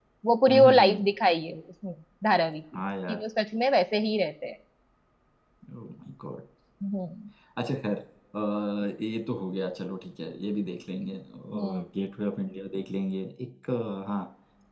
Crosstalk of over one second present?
No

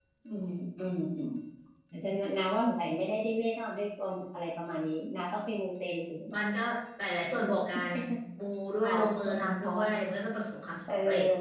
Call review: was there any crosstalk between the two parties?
Yes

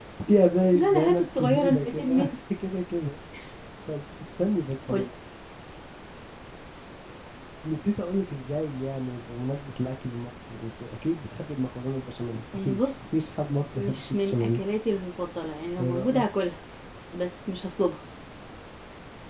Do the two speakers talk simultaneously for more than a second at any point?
Yes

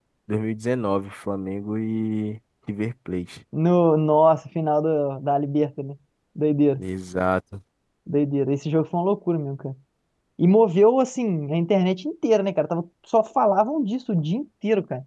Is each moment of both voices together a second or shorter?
Yes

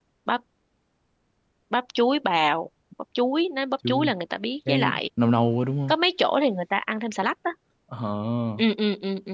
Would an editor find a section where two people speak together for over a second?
No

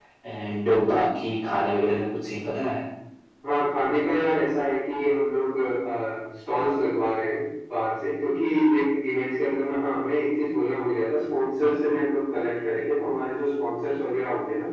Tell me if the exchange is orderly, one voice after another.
Yes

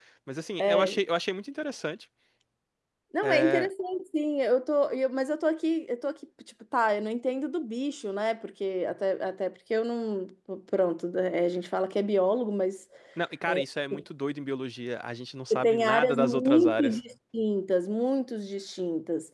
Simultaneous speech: Yes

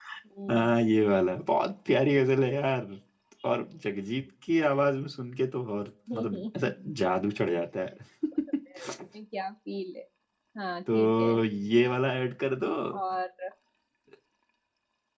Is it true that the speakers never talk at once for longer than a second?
No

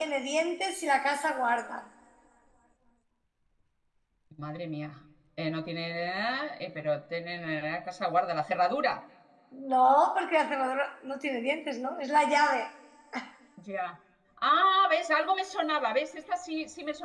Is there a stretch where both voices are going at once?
No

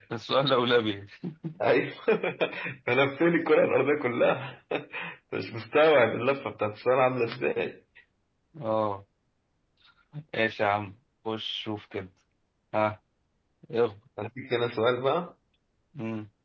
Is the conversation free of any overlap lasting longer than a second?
Yes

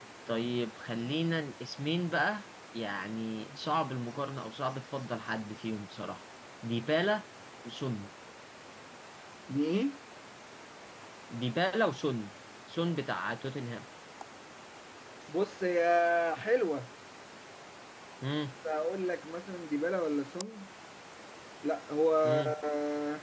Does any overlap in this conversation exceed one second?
No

